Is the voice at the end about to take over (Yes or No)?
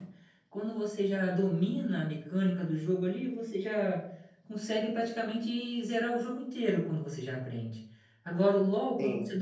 No